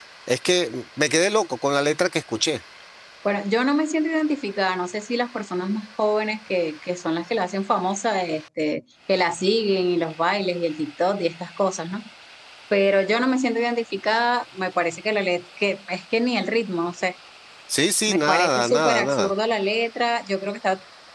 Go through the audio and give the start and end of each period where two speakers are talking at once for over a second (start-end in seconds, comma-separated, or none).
18.1-19.3